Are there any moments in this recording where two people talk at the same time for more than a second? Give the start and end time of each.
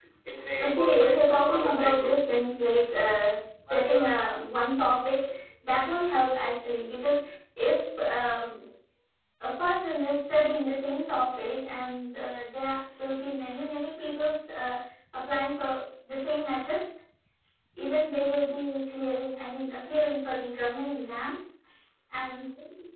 0.6-2.2

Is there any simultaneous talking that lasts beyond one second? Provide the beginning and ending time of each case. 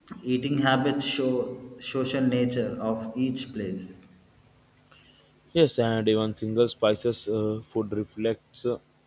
none

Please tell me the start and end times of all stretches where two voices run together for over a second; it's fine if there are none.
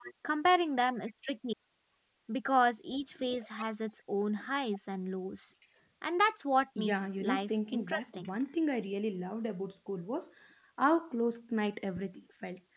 6.8-8.3

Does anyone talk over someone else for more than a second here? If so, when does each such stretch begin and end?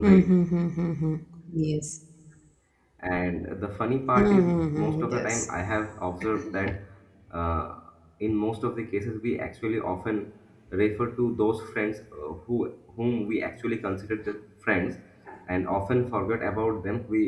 4.2-5.5

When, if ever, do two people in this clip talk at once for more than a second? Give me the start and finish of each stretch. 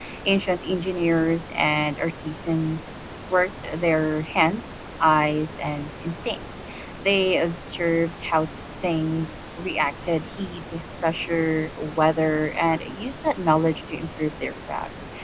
none

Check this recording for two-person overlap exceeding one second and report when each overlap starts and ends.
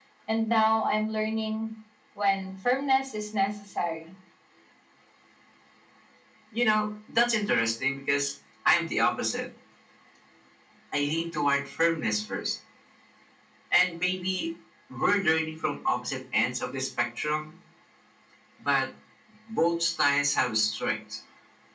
none

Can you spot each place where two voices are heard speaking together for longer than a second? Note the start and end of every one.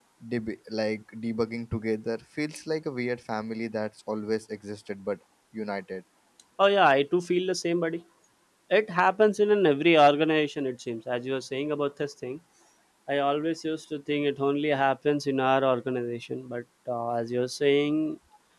none

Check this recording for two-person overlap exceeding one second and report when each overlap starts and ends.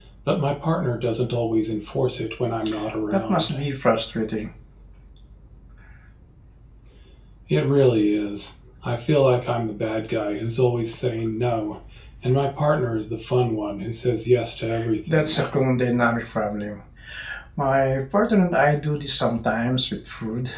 none

